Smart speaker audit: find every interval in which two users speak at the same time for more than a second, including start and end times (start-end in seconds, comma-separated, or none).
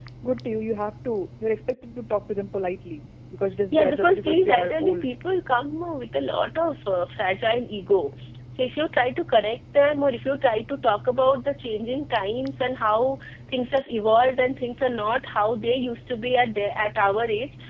3.7-5.1